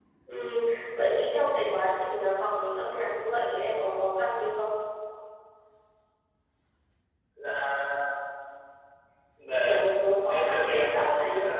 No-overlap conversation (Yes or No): No